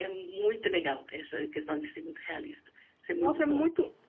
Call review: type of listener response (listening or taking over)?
taking over